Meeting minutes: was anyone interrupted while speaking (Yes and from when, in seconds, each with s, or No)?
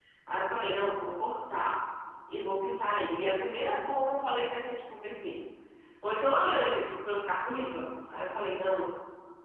No